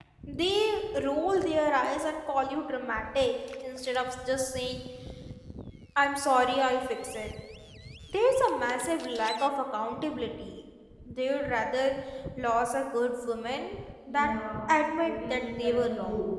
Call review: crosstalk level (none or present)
present